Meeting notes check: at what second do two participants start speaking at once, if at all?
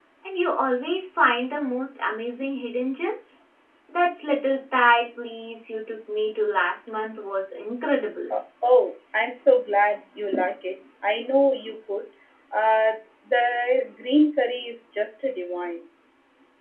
none

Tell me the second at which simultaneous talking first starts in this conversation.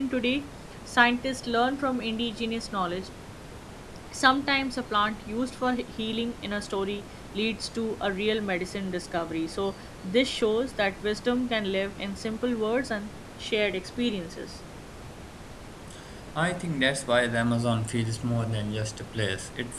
none

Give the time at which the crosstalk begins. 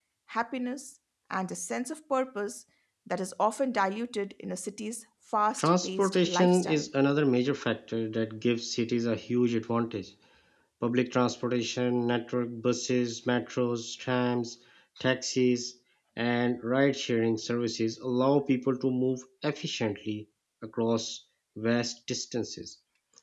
5.6 s

